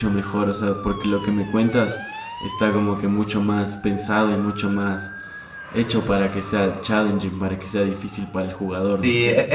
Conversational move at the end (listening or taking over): taking over